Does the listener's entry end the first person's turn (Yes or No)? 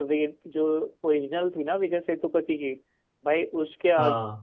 No